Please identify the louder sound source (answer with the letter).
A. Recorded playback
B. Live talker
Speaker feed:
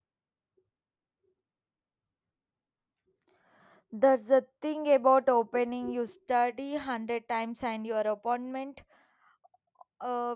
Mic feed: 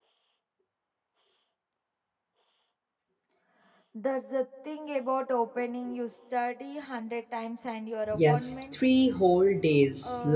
B